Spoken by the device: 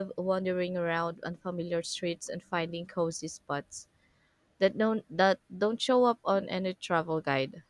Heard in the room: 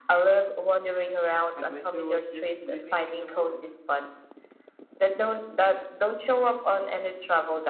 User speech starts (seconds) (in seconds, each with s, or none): 1.6 s